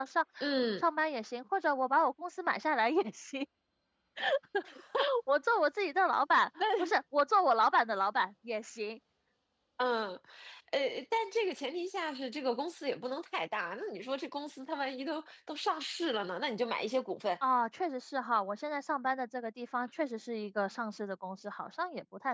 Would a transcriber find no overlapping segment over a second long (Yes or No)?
Yes